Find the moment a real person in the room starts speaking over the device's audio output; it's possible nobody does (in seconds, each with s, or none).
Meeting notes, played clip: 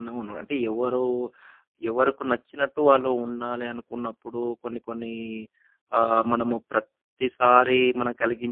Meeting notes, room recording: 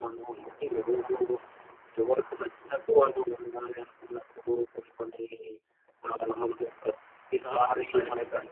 7.4 s